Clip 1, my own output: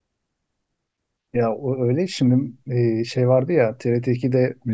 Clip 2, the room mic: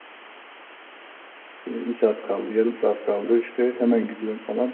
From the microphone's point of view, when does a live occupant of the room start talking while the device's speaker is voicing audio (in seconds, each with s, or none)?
1.7 s